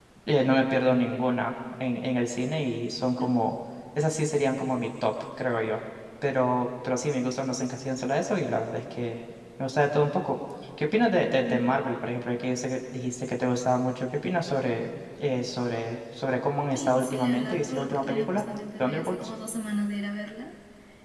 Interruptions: present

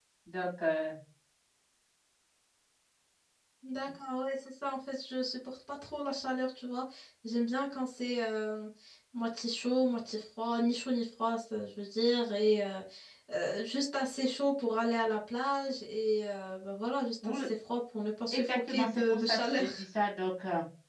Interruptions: present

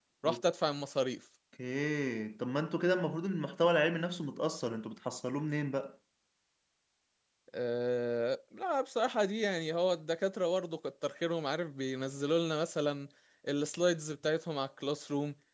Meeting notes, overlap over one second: none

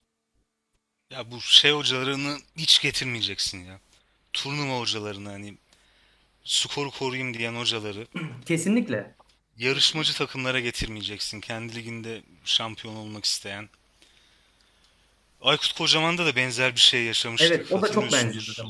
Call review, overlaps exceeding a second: present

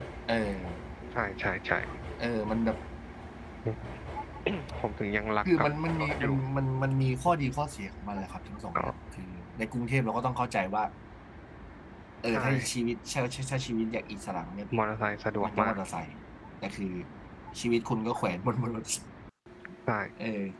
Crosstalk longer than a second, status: none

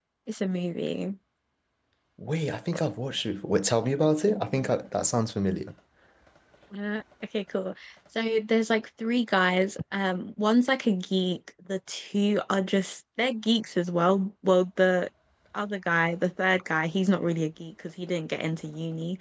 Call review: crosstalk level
none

